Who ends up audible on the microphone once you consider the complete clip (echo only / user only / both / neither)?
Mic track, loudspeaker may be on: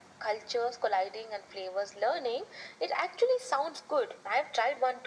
echo only